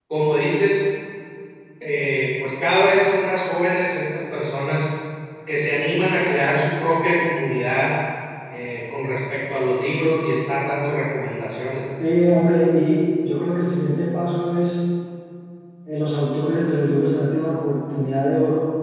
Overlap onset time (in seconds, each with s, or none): none